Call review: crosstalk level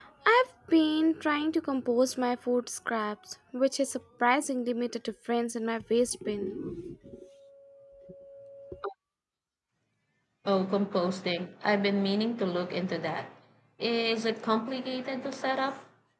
none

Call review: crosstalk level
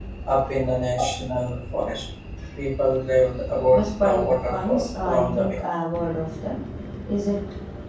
present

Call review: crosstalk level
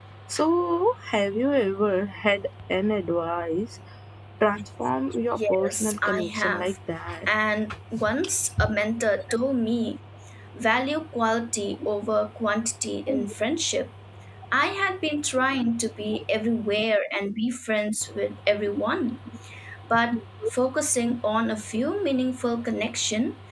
present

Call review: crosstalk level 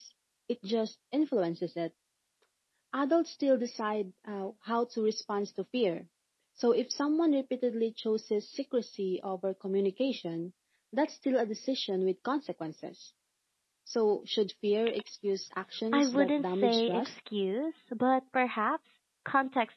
present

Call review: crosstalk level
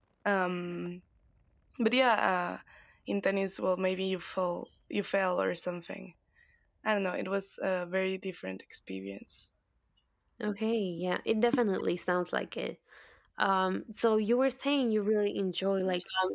none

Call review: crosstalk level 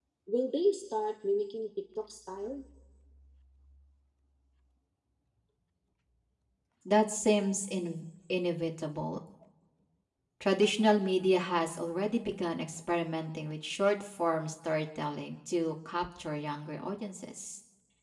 none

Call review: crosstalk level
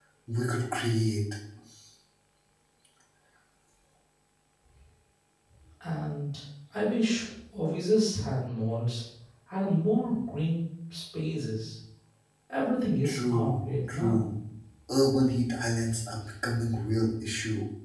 present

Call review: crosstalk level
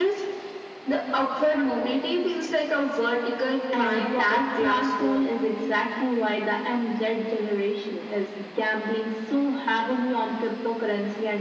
present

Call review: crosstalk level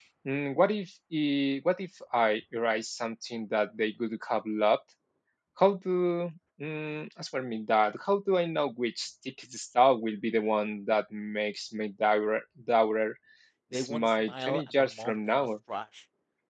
present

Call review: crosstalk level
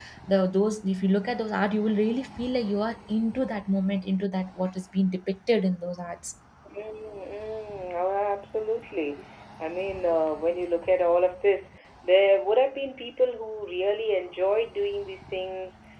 none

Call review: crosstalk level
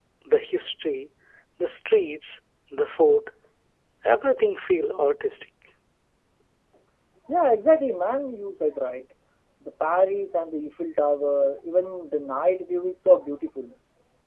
none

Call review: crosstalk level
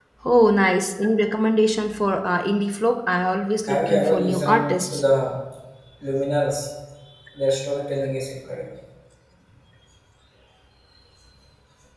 present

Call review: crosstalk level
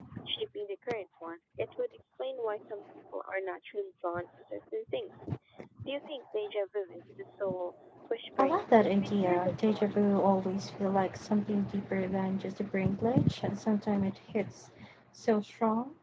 present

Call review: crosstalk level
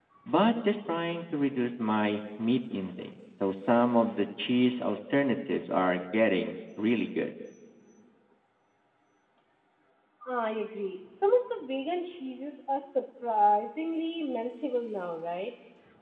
none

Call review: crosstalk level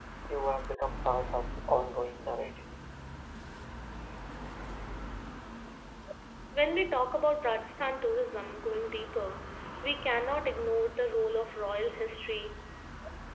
none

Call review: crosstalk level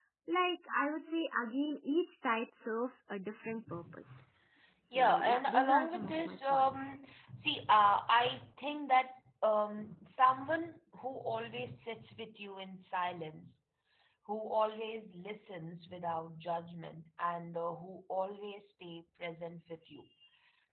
present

